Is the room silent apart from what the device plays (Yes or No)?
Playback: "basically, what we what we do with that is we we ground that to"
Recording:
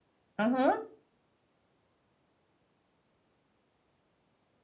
No